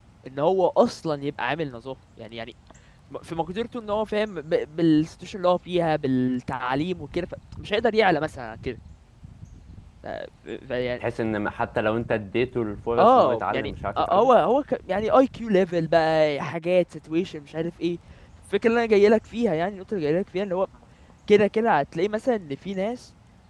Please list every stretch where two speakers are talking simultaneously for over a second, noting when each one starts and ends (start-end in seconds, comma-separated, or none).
13.0-14.3